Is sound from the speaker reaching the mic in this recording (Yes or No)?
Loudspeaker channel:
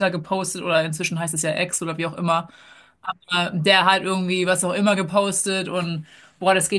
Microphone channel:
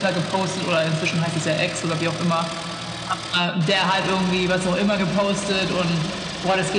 Yes